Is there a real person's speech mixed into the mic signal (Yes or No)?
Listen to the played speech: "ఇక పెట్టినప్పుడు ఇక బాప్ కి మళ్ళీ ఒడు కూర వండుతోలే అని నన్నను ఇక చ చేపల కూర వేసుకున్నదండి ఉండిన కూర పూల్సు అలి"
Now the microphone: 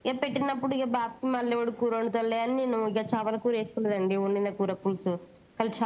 No